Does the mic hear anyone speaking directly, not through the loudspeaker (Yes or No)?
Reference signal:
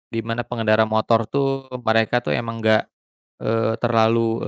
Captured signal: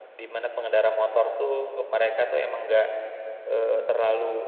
Yes